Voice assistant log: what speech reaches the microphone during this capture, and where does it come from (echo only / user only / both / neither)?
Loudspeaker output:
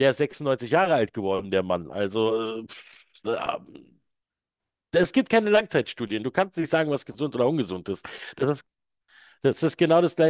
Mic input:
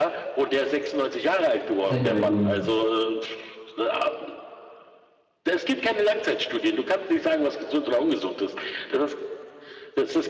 both